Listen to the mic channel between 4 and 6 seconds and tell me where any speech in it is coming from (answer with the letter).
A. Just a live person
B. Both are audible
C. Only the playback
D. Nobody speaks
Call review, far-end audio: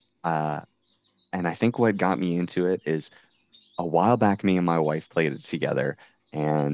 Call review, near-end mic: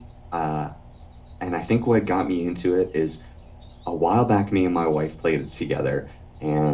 C